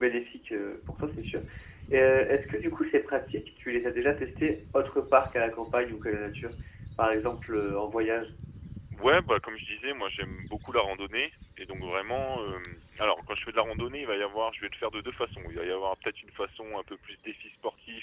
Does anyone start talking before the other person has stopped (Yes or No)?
No